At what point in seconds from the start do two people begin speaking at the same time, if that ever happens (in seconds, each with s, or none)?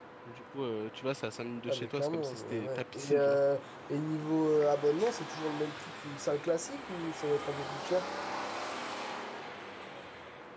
1.7 s